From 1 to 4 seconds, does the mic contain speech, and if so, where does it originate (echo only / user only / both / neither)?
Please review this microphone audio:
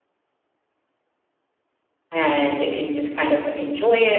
user only